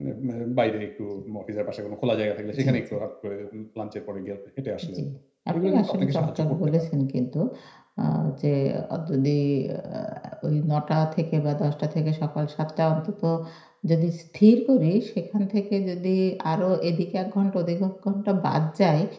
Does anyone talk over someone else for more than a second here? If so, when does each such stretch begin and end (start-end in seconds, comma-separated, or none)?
5.6-6.8